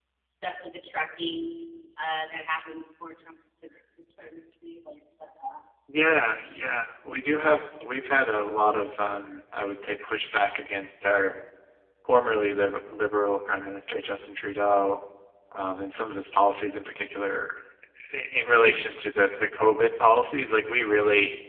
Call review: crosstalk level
none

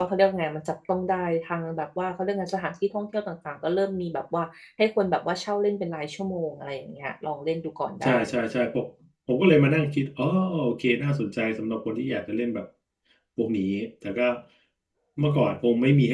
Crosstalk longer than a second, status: none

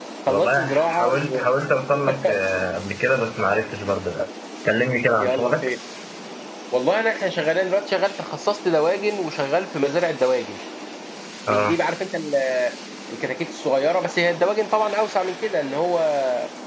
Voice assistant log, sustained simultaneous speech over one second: present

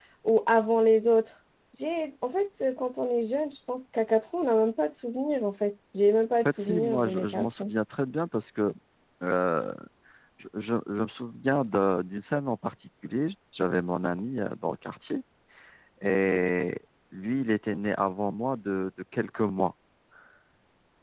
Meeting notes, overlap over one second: present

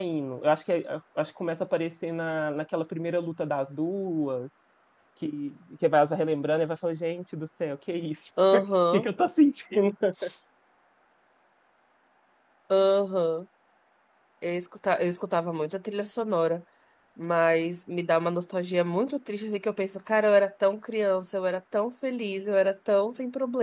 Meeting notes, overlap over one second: none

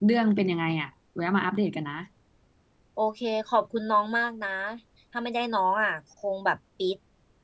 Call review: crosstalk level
none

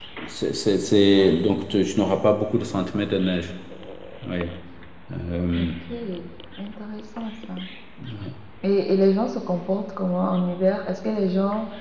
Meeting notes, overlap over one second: none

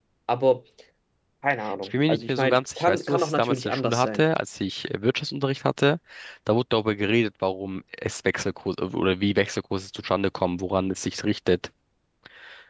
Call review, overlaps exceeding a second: present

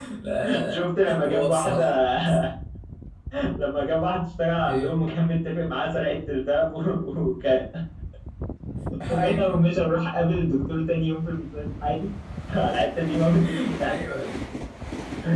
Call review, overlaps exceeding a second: present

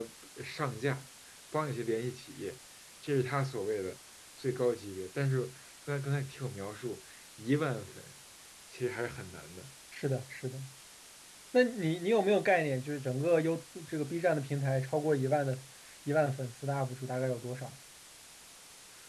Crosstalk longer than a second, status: none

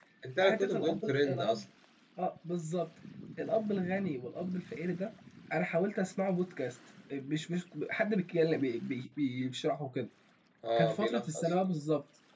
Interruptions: present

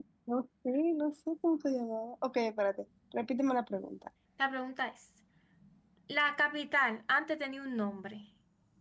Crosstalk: none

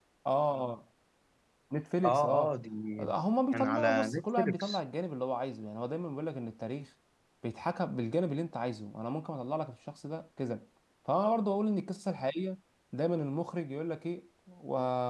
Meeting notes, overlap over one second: present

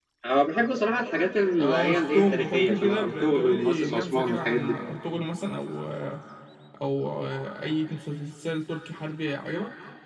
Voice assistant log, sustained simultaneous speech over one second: present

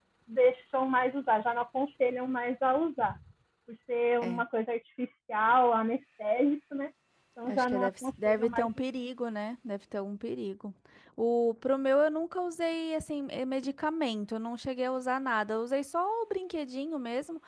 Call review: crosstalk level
present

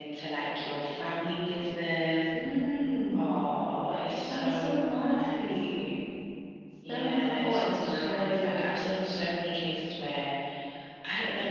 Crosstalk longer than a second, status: present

